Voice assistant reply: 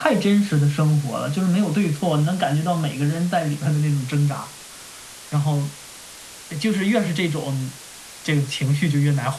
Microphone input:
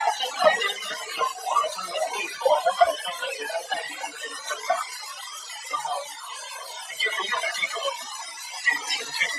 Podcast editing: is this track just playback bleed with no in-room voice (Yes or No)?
Yes